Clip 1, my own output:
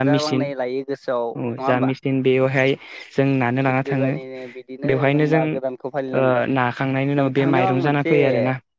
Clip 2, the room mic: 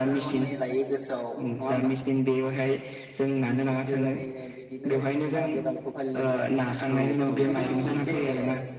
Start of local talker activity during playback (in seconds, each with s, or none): 6.9 s